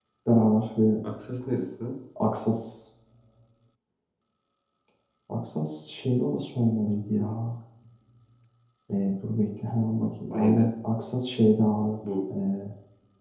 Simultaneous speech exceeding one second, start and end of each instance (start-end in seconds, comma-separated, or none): none